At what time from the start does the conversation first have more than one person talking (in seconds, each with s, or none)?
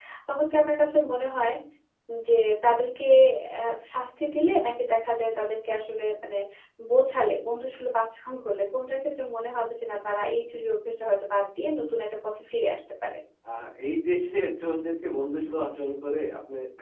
none